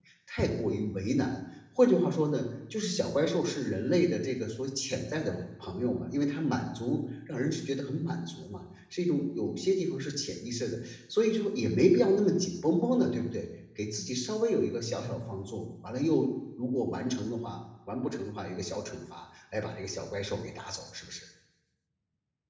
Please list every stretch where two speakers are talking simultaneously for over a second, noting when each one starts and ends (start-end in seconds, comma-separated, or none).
none